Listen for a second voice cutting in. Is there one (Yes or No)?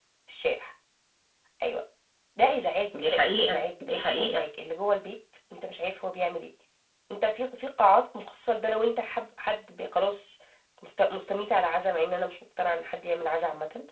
Yes